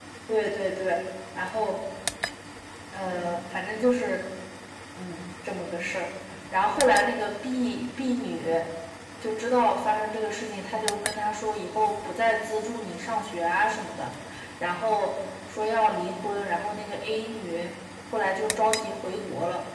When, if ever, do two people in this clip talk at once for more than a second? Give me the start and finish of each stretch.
none

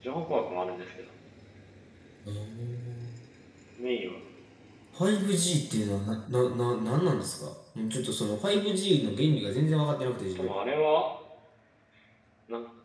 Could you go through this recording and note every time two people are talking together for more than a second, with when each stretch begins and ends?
none

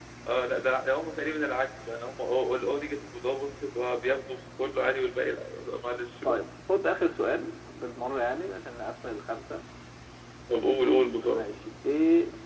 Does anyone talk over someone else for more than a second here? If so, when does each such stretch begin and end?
none

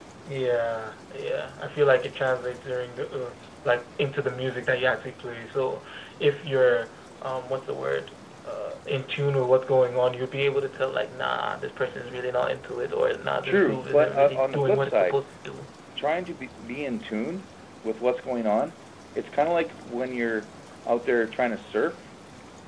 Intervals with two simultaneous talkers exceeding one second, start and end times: 13.4-15.2

